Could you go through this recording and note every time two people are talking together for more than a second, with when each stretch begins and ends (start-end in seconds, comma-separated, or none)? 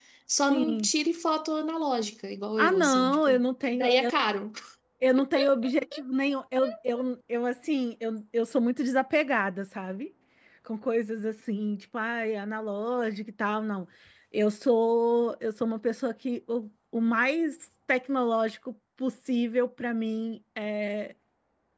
2.6-3.9